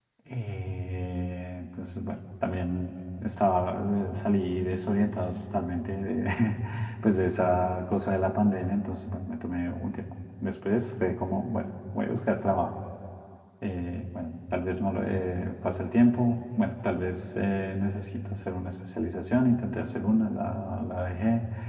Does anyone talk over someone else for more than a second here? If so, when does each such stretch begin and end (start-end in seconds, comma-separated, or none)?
none